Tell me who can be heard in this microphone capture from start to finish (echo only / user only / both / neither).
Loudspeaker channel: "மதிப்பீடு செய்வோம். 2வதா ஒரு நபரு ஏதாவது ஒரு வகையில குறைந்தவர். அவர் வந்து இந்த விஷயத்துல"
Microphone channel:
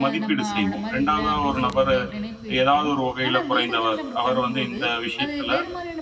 both